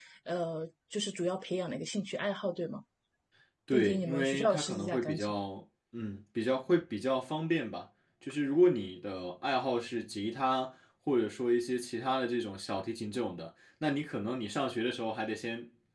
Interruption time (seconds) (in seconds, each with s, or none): 3.7 s